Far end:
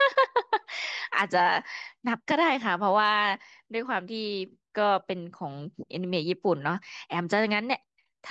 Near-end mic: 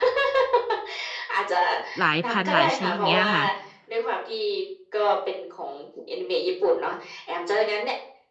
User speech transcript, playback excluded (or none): หลายพันหลายชนิดอย่างเงี้ยค่ะ